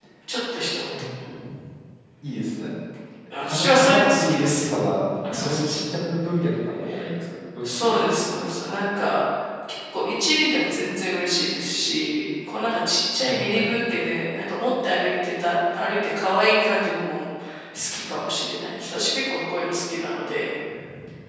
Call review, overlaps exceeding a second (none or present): present